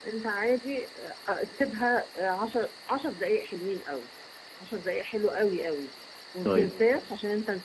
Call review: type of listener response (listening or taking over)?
listening